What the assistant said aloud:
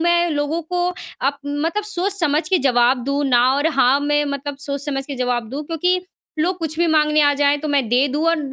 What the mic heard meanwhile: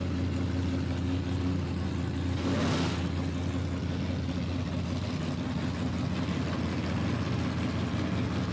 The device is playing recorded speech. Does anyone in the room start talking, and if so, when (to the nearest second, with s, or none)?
none